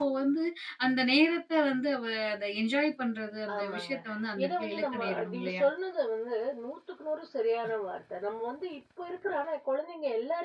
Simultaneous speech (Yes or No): Yes